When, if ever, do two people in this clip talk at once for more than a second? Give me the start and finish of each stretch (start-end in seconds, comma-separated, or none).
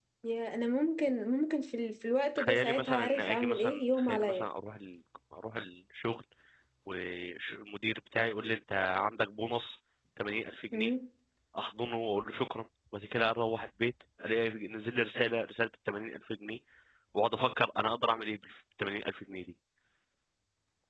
2.4-4.5